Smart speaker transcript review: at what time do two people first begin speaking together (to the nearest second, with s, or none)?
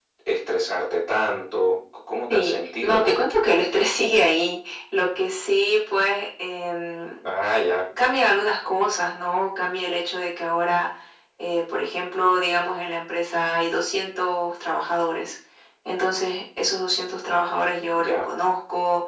2 s